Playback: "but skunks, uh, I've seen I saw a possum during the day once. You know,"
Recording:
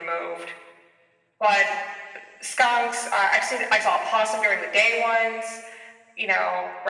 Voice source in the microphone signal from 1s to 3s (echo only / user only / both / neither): echo only